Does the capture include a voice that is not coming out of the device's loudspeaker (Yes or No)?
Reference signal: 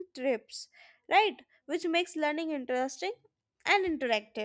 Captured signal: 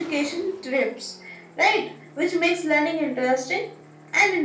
No